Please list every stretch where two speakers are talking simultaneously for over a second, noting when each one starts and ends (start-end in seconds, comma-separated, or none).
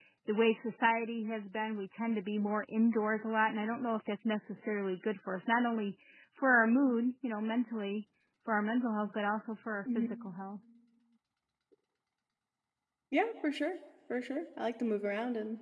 none